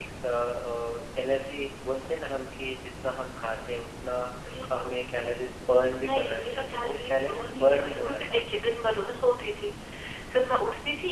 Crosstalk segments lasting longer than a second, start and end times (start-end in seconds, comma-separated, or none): 5.9-8.4